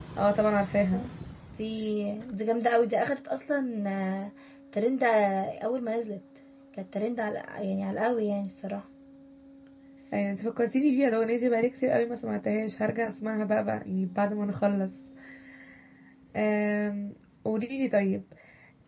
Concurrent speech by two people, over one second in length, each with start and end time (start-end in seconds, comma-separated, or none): none